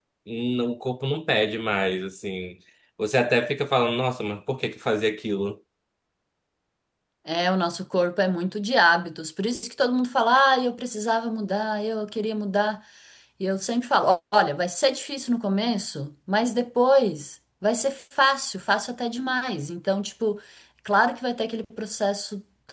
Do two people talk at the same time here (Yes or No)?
No